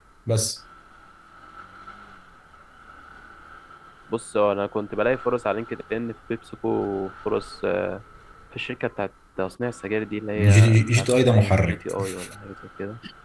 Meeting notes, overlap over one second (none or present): present